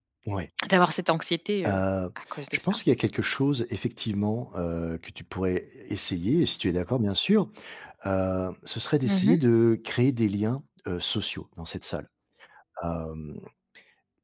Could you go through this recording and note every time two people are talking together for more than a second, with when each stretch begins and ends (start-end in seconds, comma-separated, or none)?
none